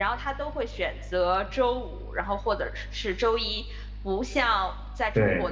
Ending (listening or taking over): listening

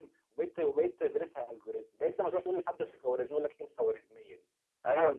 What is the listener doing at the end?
taking over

